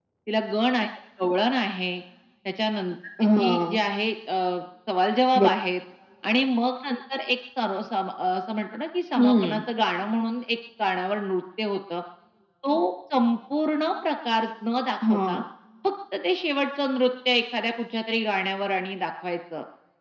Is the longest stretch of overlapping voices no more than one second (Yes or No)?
Yes